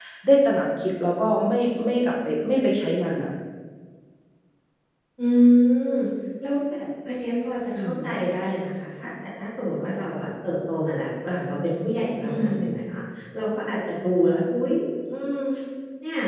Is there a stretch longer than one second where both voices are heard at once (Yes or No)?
No